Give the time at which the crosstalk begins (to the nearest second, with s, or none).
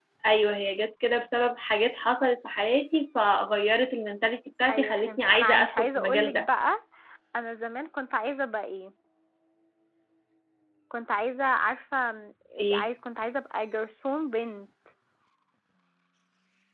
5 s